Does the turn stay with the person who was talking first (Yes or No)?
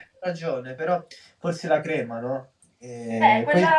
No